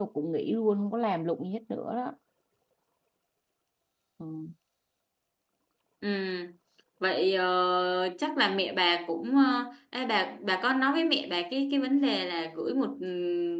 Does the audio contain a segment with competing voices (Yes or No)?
No